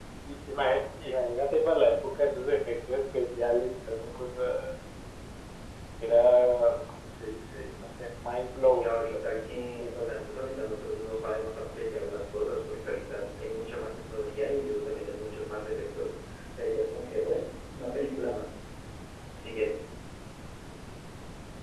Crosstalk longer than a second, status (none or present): present